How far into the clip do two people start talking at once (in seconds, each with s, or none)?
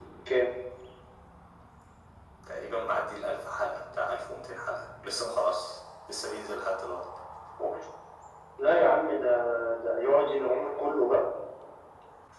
none